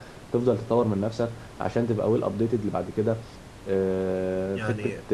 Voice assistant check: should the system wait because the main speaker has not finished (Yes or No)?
Yes